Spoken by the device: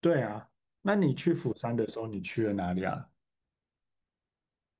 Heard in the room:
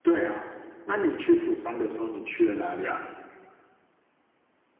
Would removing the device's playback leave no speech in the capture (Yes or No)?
Yes